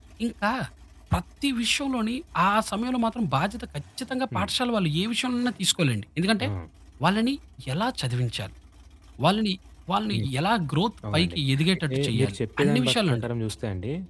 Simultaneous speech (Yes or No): Yes